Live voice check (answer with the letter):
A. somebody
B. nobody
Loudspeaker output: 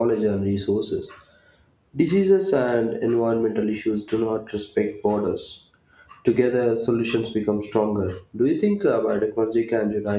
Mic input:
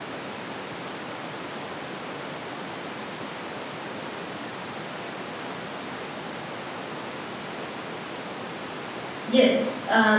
A